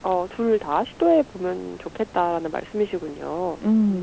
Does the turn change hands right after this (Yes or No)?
Yes